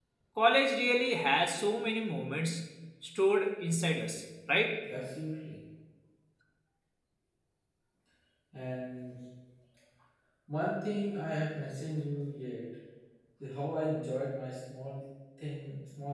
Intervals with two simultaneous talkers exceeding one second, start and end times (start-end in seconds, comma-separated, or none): none